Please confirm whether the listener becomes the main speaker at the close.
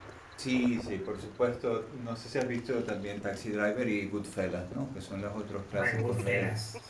Yes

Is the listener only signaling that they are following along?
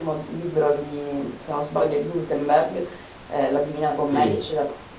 Yes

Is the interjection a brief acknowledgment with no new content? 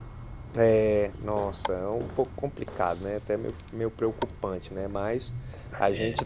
Yes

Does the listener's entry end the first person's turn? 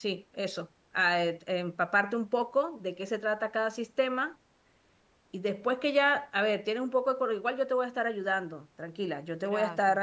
No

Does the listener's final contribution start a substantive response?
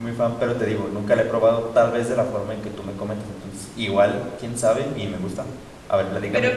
Yes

